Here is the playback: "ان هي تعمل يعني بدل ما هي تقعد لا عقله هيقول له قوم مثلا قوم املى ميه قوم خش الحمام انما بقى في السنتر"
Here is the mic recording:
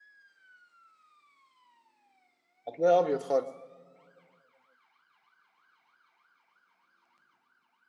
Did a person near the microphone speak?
Yes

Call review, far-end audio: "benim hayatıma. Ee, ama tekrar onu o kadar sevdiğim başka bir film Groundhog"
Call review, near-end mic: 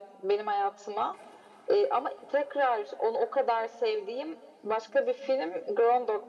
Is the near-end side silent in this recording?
Yes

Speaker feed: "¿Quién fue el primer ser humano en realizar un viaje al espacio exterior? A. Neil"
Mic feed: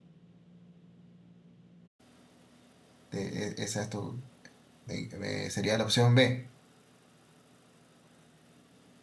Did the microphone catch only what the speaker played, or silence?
No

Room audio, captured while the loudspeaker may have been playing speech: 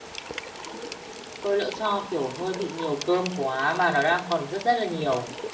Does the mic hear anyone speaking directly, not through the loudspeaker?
Yes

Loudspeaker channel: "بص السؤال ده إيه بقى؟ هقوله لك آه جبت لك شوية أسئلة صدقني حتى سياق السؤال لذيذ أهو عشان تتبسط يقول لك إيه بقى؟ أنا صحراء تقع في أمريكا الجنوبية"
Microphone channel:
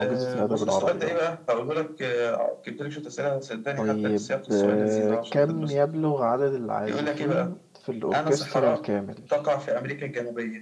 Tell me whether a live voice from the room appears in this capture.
Yes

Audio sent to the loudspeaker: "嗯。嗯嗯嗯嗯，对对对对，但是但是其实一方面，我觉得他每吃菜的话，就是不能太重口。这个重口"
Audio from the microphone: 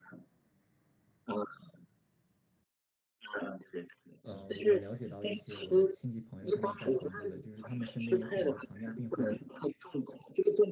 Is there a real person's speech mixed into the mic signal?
Yes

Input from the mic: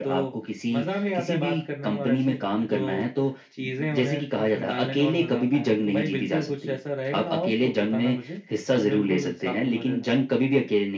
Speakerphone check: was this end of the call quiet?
Yes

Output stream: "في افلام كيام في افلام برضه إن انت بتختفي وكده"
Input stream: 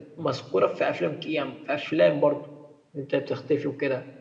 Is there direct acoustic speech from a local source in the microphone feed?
No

